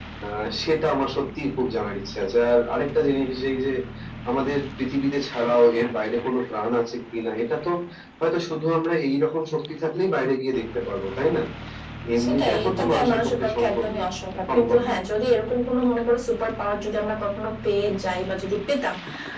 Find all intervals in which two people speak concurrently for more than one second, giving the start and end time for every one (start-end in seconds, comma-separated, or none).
12.2-14.1